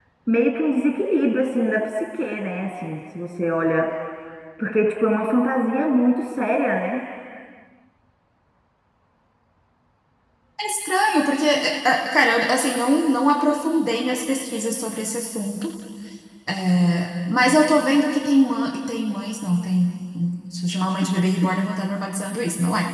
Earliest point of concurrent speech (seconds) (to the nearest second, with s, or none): none